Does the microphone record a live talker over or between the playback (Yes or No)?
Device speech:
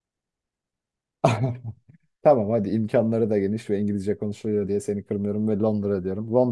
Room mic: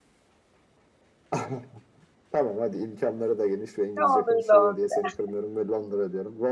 Yes